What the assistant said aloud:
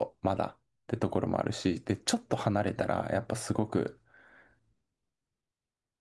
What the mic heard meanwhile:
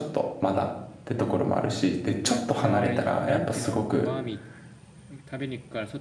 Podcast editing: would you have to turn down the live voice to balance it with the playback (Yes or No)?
No